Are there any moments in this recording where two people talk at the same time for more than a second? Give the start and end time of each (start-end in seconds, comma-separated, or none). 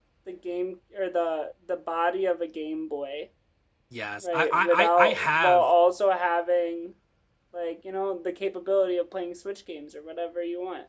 4.2-5.7